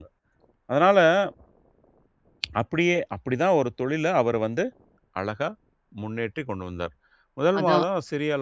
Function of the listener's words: listening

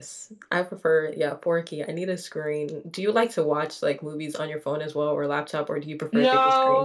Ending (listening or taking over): taking over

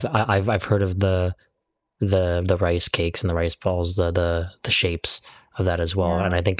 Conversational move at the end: listening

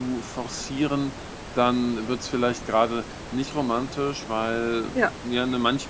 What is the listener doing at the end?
listening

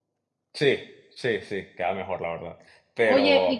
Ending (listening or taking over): taking over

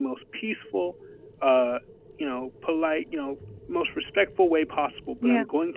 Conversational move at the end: listening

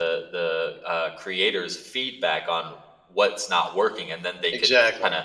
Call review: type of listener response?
listening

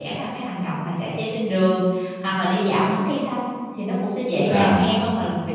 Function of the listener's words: listening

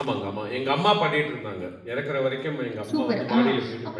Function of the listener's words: taking over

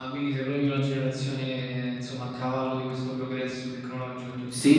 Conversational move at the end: taking over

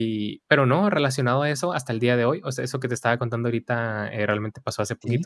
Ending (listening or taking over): listening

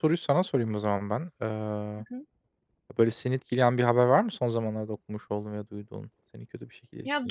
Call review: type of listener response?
taking over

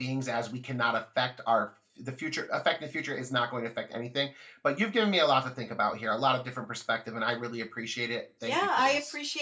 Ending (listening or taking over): taking over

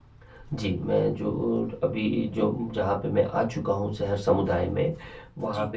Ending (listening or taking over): listening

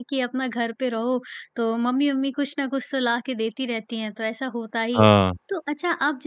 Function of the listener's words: listening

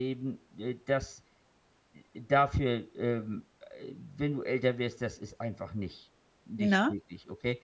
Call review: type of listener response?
listening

